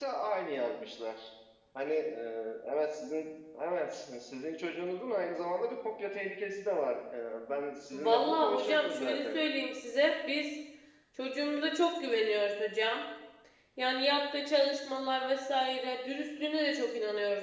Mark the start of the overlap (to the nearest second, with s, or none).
8 s